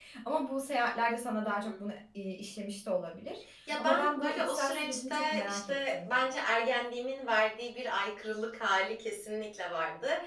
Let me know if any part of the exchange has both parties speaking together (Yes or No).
Yes